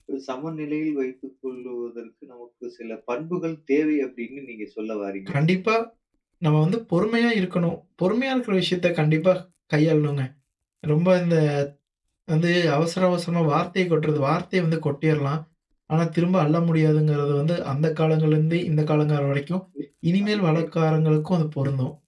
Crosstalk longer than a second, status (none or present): none